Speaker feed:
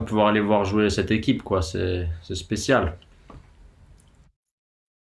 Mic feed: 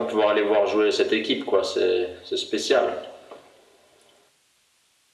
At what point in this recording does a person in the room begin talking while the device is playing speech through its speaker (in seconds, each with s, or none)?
none